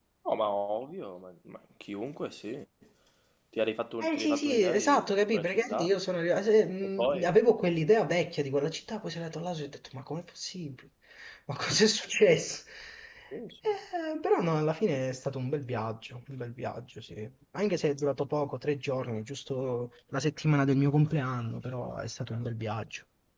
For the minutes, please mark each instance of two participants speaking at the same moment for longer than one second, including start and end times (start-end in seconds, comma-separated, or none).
4.0-6.0